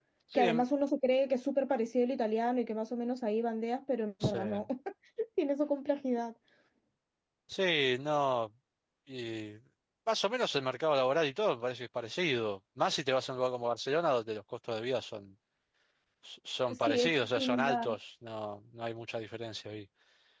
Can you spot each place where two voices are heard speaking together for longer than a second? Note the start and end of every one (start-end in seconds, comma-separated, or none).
16.7-17.9